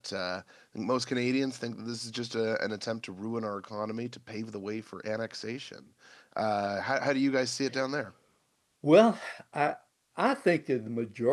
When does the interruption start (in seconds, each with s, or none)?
none